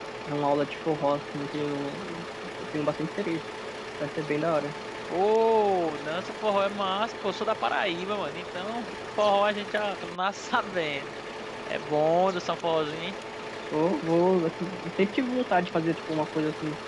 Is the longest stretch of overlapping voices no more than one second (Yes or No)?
Yes